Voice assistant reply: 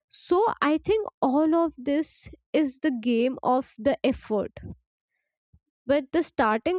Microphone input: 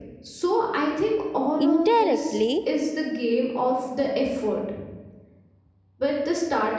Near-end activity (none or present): present